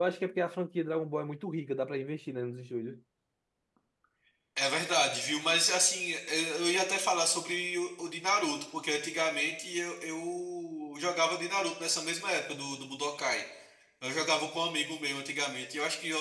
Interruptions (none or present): none